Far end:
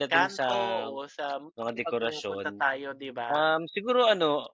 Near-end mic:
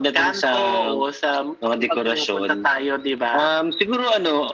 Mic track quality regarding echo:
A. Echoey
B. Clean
A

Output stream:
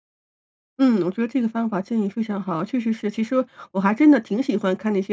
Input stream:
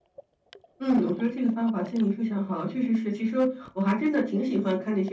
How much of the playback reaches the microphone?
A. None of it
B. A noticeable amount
B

